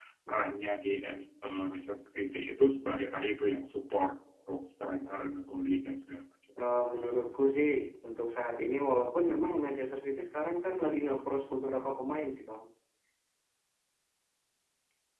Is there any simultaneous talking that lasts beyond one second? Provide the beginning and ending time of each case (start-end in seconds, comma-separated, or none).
none